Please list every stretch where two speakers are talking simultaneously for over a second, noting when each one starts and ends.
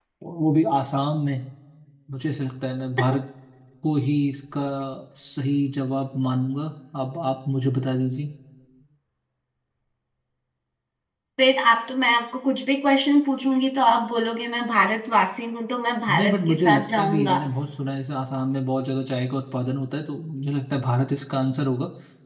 16.1-17.4

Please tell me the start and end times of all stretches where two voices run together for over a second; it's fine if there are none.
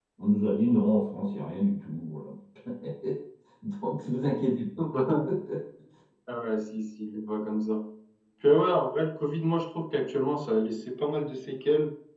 none

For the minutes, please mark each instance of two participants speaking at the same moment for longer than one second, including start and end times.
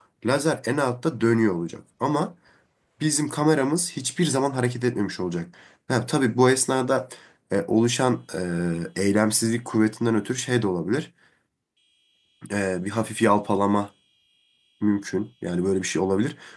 none

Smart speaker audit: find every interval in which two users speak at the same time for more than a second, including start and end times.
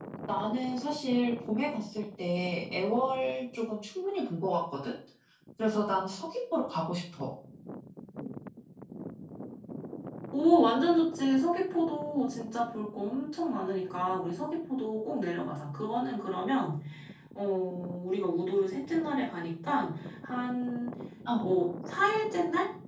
none

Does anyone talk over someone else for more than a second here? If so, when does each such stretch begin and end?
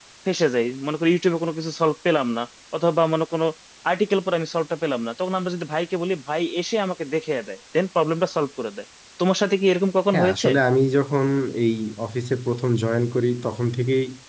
none

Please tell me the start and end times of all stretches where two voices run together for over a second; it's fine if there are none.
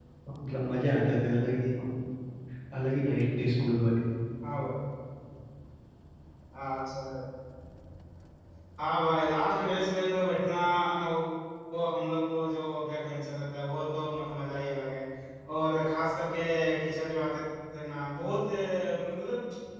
none

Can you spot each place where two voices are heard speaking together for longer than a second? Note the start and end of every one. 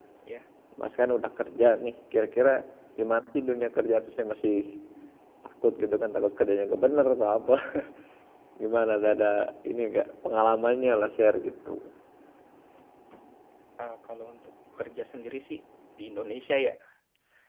none

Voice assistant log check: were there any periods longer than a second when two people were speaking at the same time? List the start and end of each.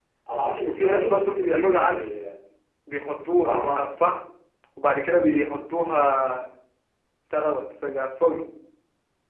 0.7-2.1

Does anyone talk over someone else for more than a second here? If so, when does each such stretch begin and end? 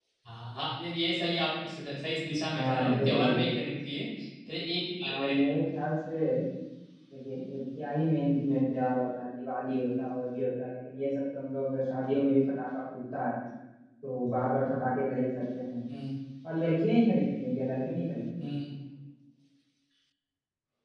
2.5-3.7

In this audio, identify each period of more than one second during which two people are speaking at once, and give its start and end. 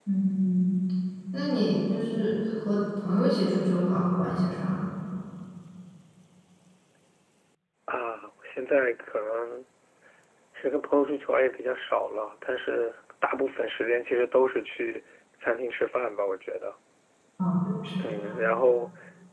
none

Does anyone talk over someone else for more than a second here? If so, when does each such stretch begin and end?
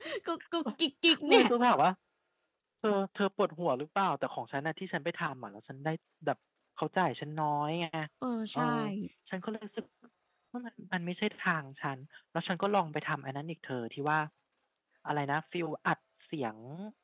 none

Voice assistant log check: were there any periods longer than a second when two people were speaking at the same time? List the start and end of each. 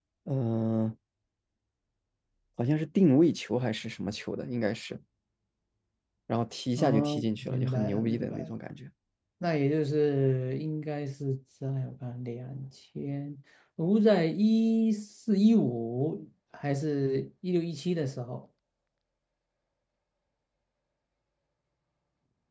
6.8-8.5

